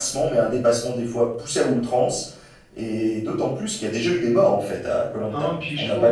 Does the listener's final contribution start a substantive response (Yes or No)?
Yes